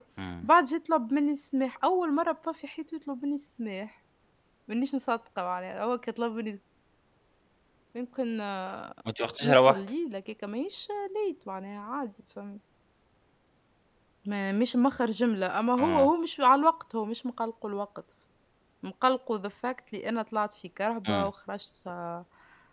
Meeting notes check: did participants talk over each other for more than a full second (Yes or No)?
No